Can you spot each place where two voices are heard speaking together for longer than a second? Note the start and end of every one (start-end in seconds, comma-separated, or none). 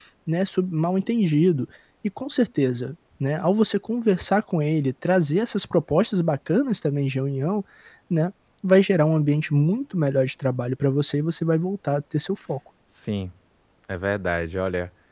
none